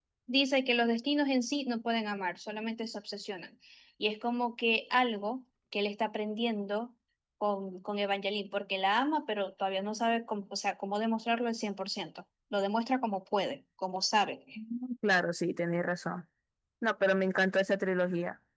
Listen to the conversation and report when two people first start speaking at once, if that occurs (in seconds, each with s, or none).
none